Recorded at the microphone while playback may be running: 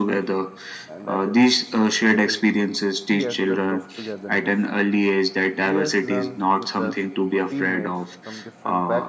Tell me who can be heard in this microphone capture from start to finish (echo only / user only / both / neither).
both